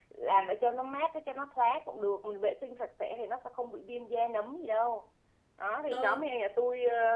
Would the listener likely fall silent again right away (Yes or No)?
Yes